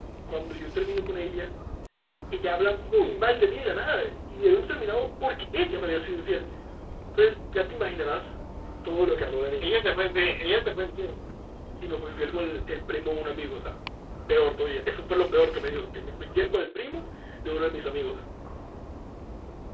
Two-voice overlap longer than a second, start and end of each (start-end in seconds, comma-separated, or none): none